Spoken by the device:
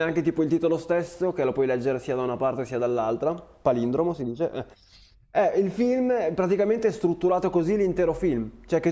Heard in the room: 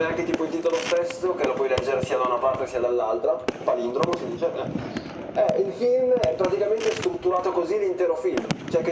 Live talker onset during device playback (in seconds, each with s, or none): none